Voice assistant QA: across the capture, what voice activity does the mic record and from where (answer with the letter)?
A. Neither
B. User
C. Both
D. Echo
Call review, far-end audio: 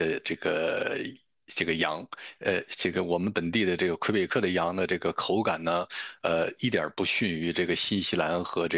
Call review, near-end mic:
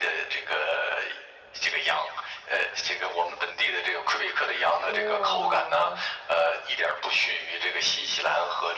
C